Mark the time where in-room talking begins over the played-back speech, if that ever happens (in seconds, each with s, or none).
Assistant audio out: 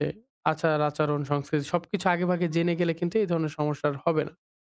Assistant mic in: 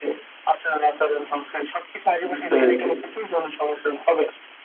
2.3 s